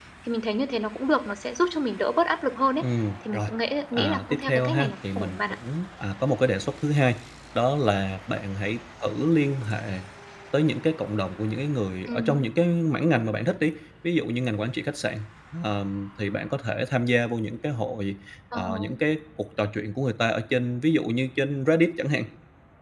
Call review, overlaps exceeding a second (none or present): present